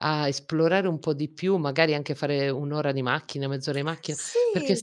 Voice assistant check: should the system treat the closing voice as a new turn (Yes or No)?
No